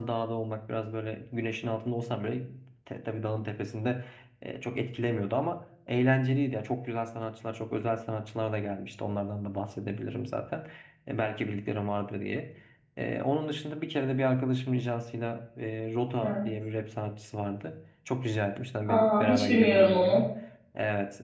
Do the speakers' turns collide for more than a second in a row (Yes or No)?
Yes